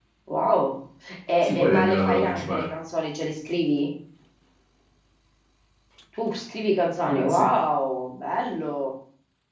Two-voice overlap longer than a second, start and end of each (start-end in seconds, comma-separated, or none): 1.4-2.7